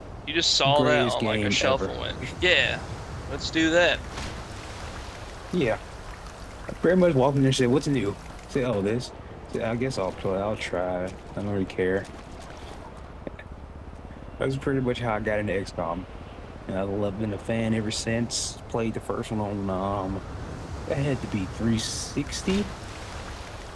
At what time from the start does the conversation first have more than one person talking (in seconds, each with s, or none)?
0.7 s